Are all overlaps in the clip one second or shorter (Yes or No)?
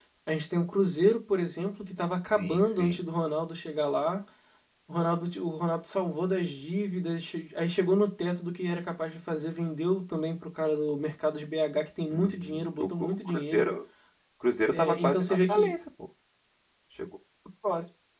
No